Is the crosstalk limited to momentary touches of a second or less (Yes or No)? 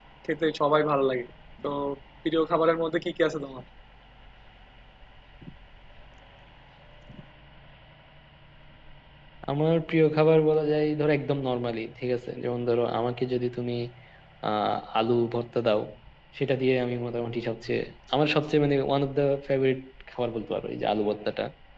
Yes